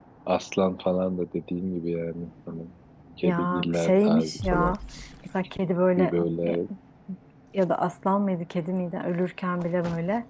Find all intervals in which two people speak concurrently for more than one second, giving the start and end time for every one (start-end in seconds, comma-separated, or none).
3.2-4.7